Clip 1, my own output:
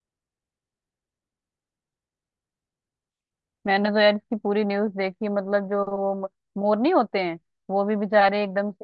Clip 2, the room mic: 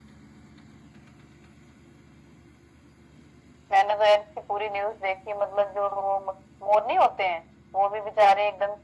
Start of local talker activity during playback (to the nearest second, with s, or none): none